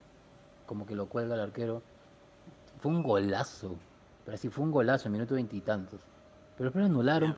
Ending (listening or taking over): listening